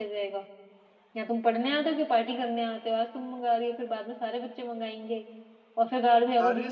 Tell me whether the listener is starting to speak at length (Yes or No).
No